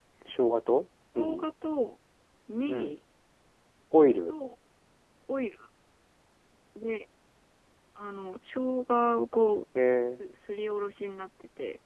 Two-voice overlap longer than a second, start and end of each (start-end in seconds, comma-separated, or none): none